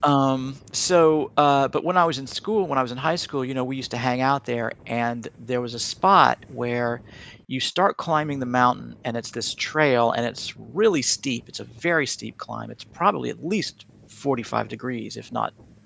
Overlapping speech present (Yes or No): No